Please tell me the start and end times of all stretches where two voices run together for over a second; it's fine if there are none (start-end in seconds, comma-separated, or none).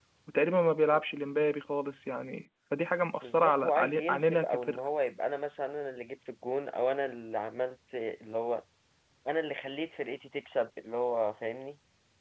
3.2-4.8